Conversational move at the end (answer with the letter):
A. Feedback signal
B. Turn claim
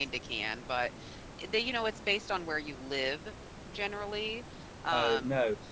B